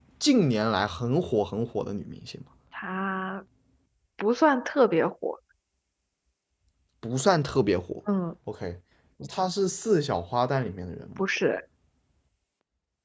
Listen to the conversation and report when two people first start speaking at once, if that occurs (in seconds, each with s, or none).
none